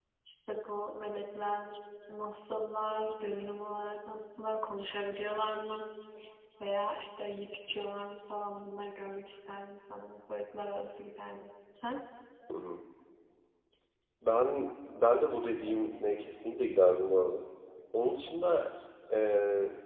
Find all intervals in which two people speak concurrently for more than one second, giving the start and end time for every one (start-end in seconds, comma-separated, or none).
none